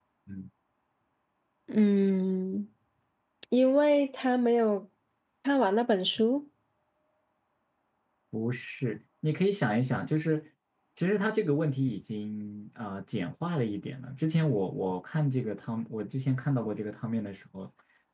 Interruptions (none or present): none